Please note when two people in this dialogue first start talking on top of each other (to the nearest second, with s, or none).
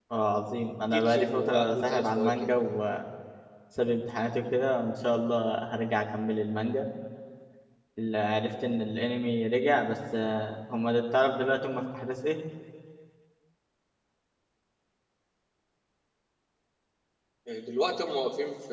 1 s